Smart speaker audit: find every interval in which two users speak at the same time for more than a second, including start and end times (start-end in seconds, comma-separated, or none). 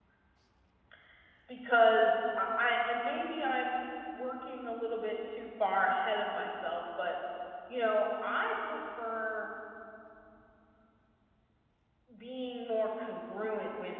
none